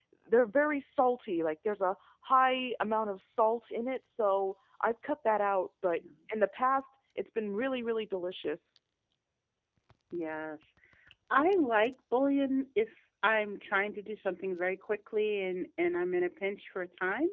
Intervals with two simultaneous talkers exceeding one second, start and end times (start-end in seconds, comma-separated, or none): none